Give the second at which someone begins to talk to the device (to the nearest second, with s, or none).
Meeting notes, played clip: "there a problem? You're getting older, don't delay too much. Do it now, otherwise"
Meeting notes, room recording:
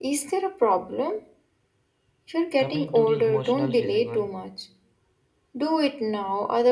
3 s